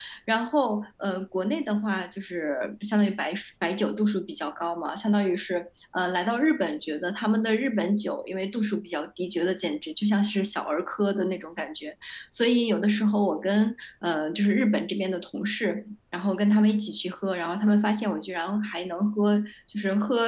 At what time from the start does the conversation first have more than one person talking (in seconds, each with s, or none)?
none